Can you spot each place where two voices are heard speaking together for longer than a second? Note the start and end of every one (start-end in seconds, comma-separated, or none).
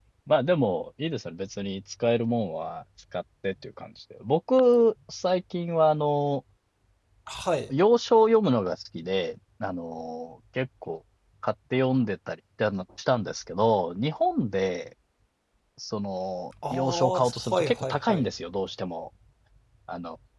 16.7-18.3